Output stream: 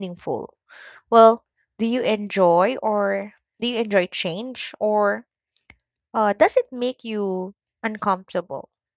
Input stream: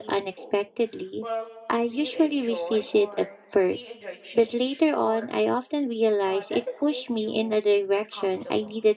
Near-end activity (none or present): present